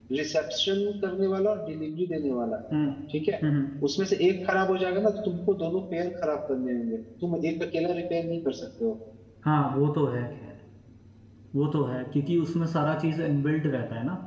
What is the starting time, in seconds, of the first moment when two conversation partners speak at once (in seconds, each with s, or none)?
none